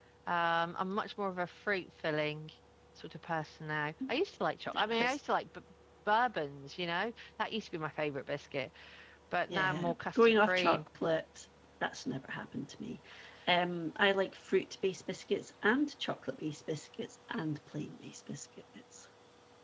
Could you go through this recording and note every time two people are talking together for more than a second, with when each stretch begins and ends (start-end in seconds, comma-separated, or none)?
9.5-10.8